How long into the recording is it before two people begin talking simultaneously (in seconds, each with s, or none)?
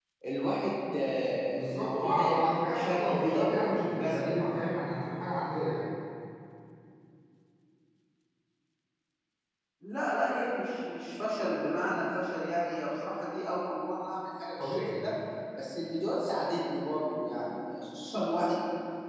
1.5 s